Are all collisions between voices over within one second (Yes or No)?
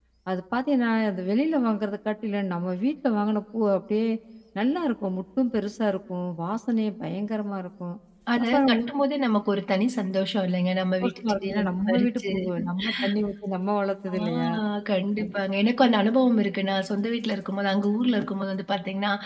No